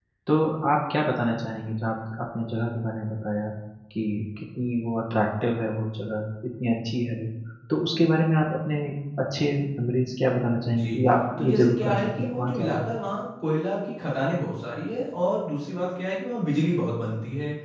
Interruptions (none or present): present